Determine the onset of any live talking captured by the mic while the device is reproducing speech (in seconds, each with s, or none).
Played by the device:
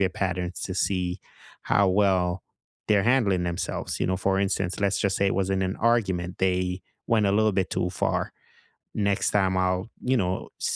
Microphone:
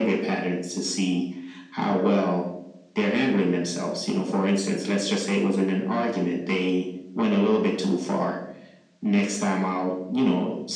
none